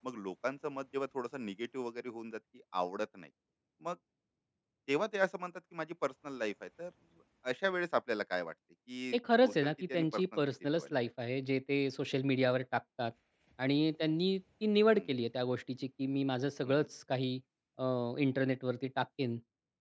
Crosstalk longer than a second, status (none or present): present